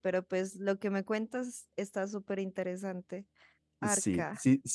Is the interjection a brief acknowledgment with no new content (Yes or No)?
No